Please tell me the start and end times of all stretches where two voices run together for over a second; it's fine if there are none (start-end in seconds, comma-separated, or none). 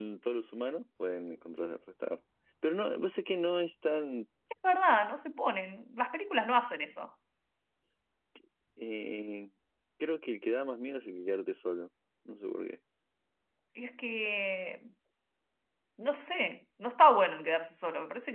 none